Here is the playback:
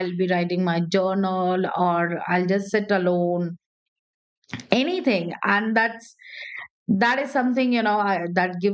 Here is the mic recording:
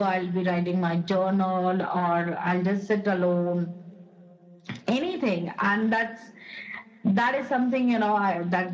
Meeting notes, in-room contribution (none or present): none